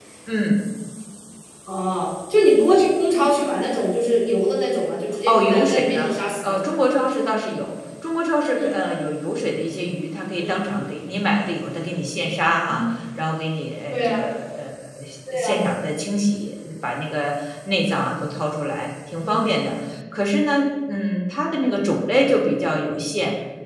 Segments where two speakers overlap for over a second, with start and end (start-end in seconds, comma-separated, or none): 5.3-6.6